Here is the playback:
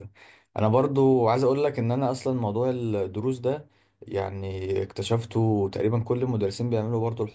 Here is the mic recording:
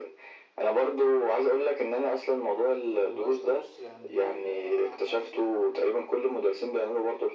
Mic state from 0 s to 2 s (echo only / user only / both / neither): echo only